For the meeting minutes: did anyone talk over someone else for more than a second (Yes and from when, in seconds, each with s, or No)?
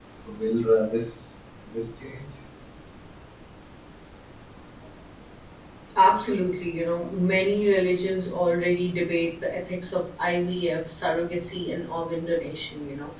No